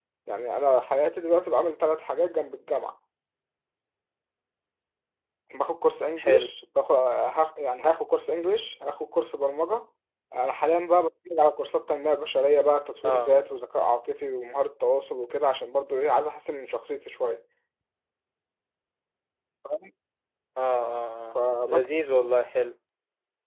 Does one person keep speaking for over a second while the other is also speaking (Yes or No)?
No